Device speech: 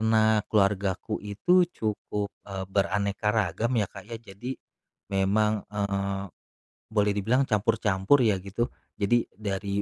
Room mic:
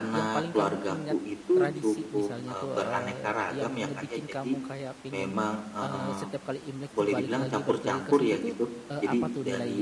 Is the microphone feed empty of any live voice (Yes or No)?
No